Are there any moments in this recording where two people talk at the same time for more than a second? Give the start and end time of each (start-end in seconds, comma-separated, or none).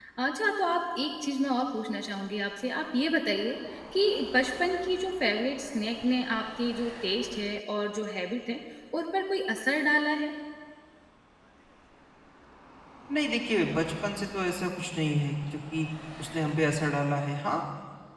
none